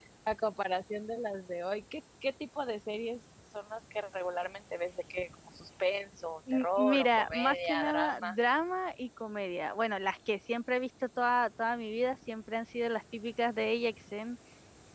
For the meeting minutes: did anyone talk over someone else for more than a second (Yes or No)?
Yes